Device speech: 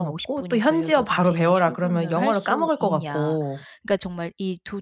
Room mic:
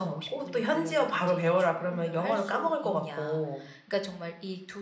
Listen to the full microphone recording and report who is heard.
echo only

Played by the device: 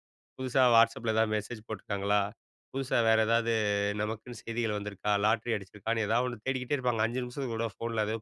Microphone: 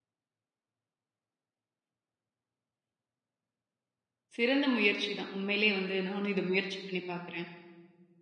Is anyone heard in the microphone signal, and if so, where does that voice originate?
user only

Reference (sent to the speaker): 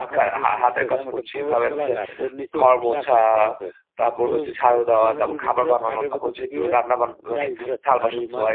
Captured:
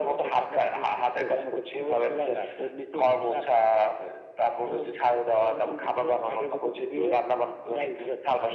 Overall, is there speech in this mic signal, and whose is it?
echo only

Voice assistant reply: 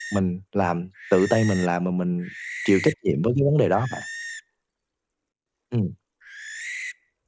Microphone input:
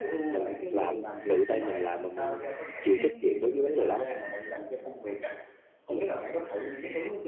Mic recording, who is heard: both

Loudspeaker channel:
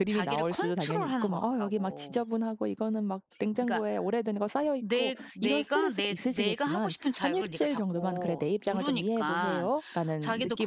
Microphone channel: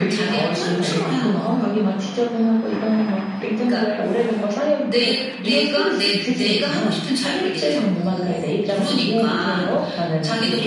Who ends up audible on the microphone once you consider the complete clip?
echo only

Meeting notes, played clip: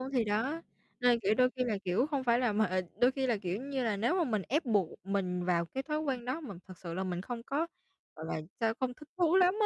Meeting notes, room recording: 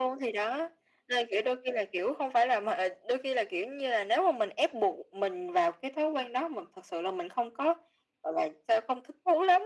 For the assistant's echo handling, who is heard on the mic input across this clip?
echo only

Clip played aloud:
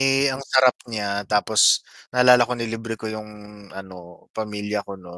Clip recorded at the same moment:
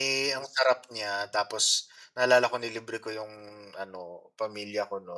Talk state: echo only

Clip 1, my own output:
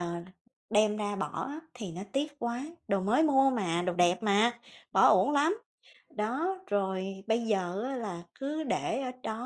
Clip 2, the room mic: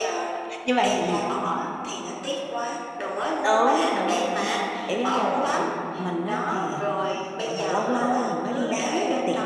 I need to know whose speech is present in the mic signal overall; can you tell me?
both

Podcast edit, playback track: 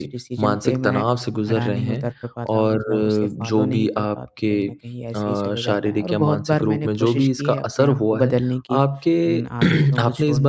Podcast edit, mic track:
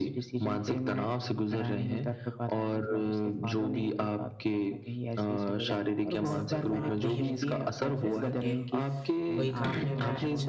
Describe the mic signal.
both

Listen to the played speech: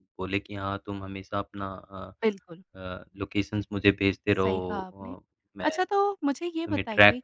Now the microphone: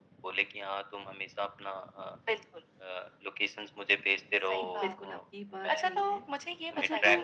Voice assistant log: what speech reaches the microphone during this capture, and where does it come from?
both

